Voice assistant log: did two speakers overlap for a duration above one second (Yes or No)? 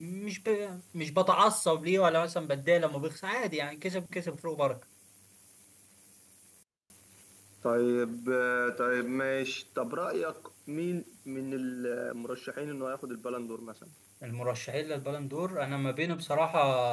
No